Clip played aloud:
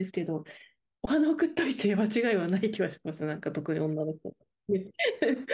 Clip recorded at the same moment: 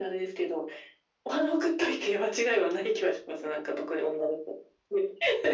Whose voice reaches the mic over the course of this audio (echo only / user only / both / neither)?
echo only